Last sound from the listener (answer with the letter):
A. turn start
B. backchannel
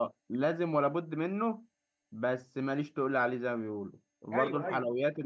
B